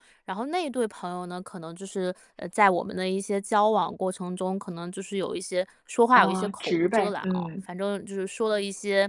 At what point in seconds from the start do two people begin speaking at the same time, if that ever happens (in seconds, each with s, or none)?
6.2 s